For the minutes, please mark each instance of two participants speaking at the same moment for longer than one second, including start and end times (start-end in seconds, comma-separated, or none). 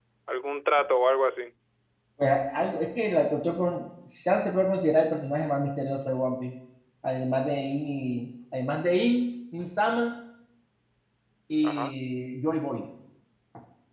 none